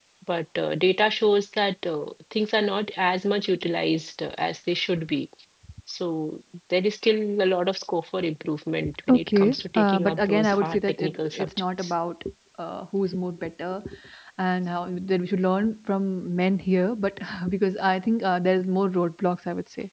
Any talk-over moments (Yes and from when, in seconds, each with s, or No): Yes, from 8.8 s